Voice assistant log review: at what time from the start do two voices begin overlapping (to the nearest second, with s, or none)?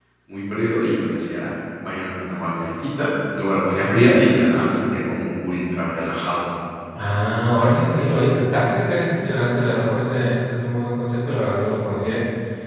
none